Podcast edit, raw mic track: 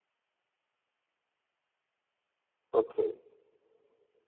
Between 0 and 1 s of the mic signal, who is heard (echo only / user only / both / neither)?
neither